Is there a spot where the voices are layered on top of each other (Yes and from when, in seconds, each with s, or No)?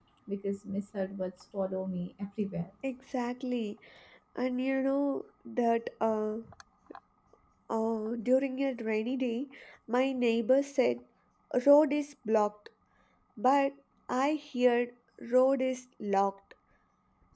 No